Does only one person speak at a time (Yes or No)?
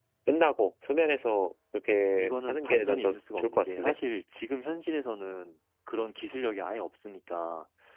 No